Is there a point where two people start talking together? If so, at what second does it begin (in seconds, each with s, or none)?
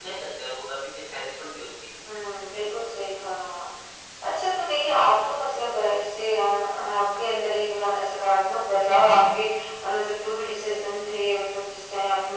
none